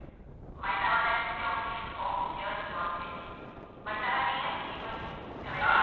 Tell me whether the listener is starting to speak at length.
Yes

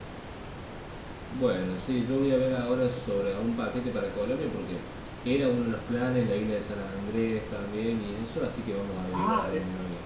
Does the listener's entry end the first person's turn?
Yes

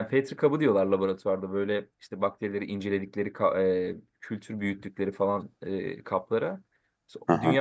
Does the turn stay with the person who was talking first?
Yes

